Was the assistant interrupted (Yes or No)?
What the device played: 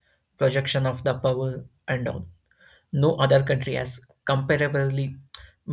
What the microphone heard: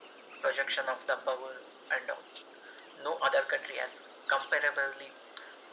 No